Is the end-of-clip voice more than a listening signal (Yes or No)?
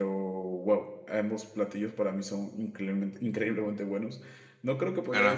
No